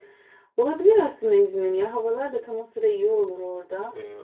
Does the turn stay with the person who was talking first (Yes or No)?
No